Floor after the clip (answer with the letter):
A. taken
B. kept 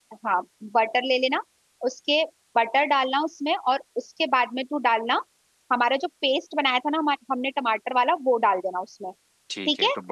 A